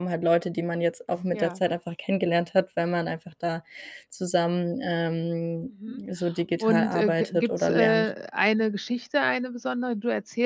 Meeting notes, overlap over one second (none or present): present